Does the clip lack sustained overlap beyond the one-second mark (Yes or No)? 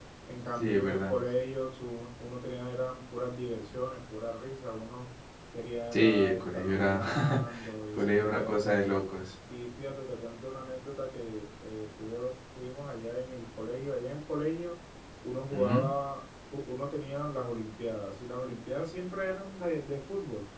No